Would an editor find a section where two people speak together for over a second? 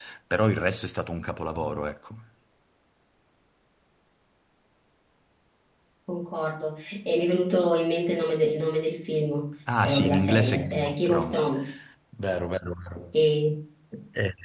Yes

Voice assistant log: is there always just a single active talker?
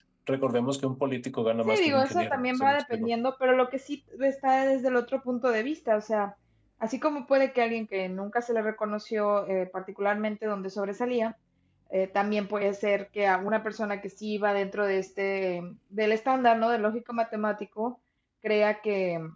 No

